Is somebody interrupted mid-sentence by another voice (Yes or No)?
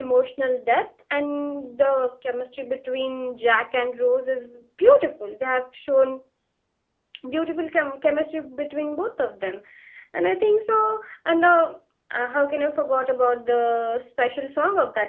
No